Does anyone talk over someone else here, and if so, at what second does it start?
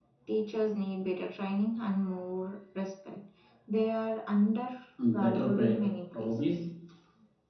5.0 s

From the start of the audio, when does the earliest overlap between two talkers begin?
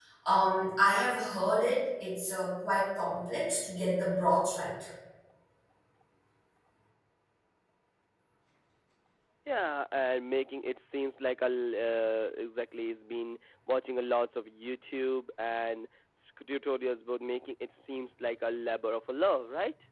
none

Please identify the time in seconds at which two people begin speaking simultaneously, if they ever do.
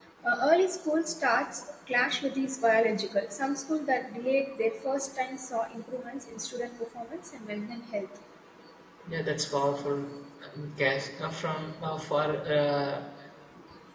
none

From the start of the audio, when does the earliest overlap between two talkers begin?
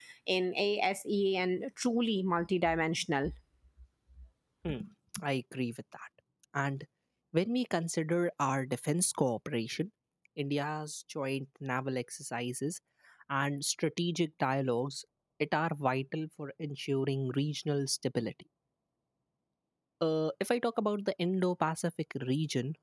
none

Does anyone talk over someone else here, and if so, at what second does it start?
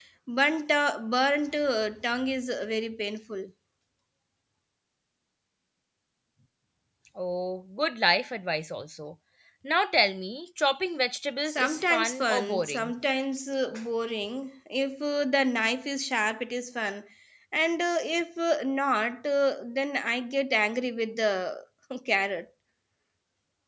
11.4 s

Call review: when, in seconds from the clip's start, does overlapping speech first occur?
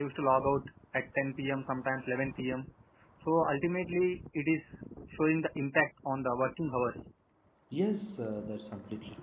none

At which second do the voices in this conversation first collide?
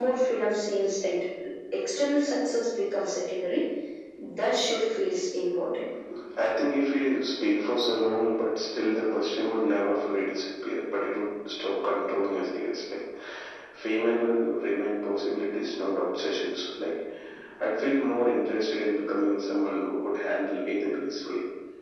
none

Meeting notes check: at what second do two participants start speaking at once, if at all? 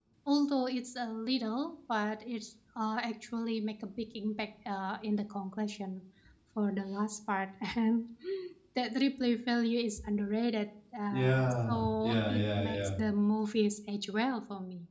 11.1 s

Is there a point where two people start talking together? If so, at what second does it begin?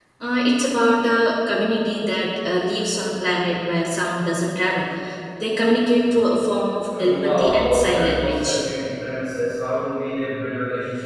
6.9 s

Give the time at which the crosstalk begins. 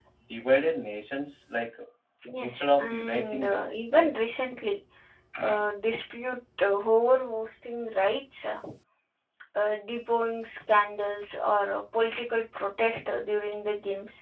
2.4 s

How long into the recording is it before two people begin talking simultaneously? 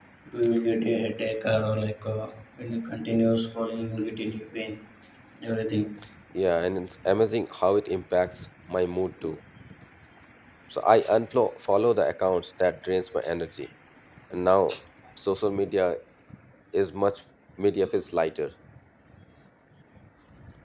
none

